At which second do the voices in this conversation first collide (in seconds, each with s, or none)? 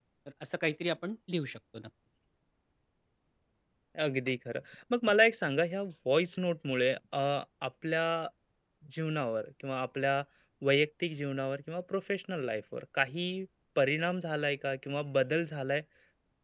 none